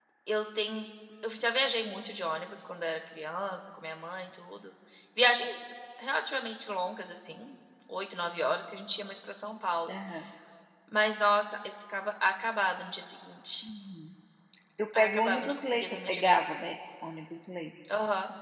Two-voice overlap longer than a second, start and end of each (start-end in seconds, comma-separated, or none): 15.0-16.4